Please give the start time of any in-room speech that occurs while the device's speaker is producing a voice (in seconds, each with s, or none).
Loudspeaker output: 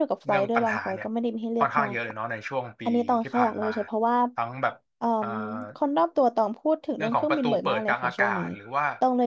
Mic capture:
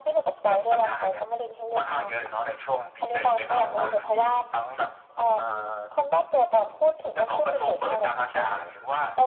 3.0 s